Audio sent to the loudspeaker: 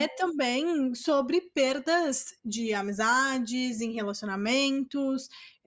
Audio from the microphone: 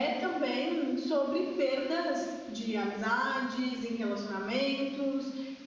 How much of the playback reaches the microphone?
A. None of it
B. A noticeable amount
B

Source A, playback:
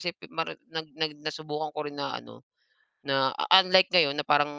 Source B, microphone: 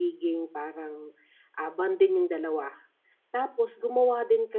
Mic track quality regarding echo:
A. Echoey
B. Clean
B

